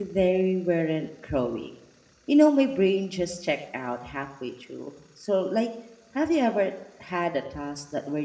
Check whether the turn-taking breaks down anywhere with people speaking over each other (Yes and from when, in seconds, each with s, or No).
No